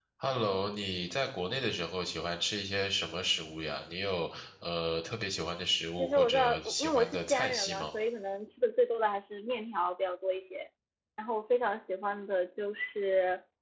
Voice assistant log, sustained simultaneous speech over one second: present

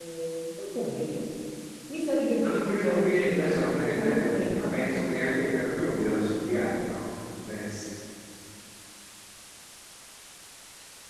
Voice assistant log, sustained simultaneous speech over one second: present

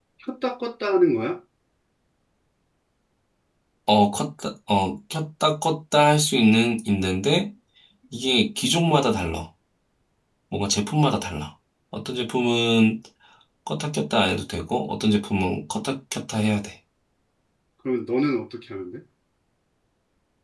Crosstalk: none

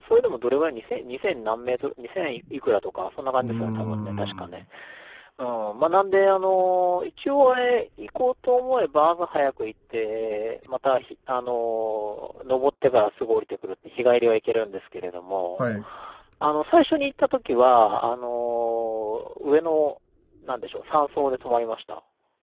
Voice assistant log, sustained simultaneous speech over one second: present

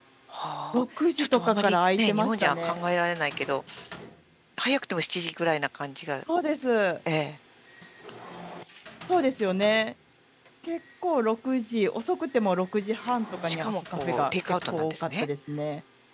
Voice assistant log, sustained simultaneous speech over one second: present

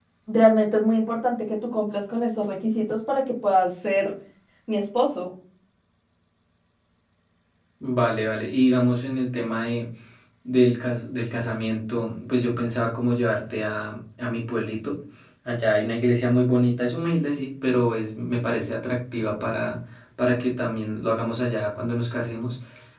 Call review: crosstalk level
none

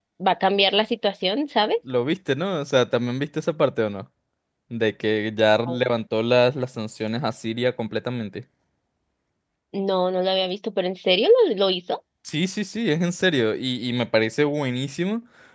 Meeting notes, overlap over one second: none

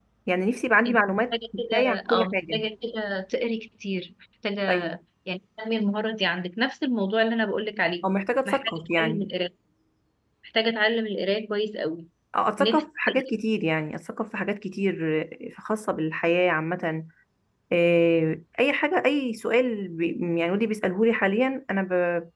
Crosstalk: present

